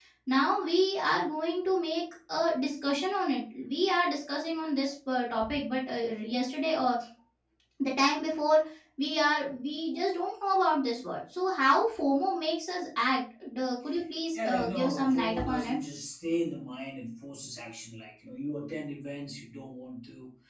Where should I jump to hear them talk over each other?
14 s

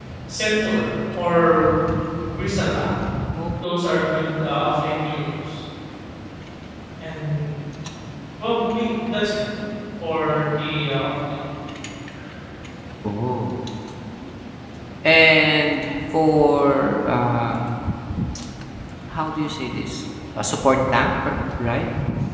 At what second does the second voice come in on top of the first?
none

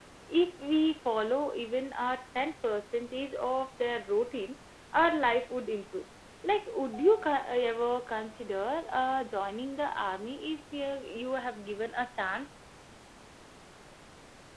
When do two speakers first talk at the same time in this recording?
none

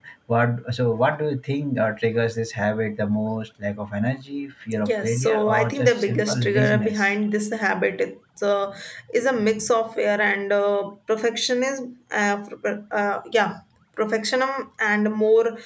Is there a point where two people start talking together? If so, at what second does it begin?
5 s

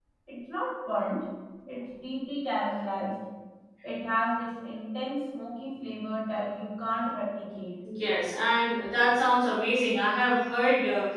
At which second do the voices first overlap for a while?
none

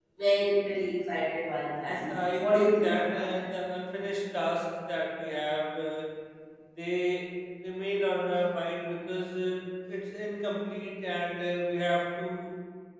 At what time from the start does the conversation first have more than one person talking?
2 s

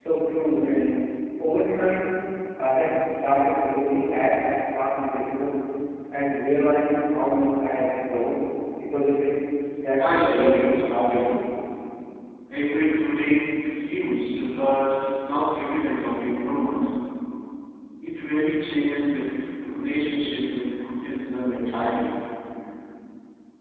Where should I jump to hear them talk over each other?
10 s

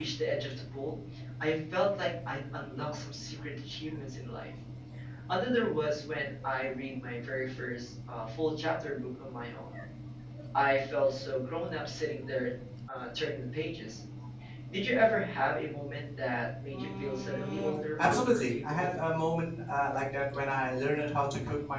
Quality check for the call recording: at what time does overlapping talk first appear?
17 s

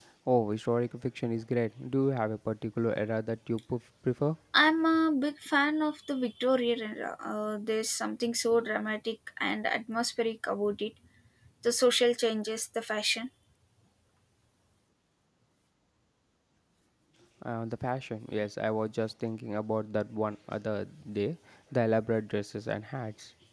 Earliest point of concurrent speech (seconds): none

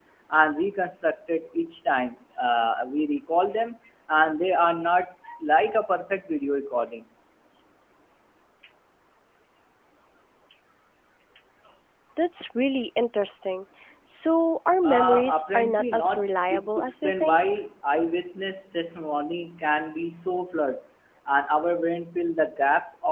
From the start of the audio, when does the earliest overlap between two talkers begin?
15 s

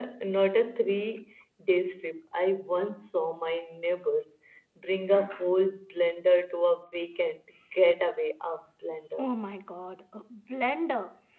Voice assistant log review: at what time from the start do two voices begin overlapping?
none

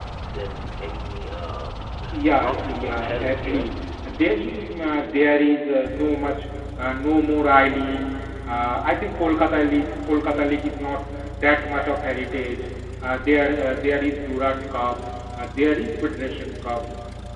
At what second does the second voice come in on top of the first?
2 s

